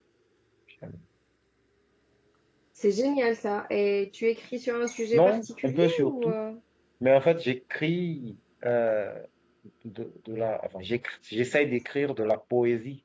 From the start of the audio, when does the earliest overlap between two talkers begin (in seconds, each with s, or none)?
5.1 s